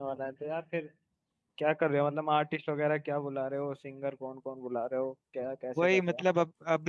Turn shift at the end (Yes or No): Yes